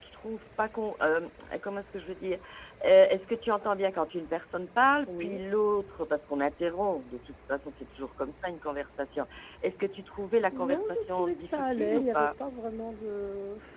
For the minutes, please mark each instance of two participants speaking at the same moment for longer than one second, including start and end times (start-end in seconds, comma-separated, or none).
10.5-12.3